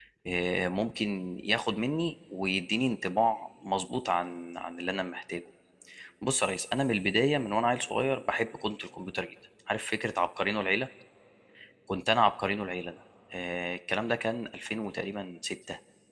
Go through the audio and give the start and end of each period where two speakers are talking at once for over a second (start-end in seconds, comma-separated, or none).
none